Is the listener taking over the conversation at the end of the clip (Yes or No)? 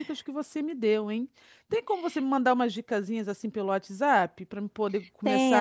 Yes